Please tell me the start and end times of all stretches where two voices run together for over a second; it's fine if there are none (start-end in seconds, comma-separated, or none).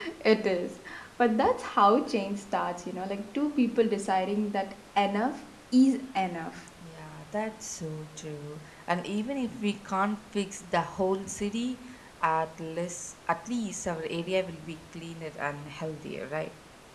none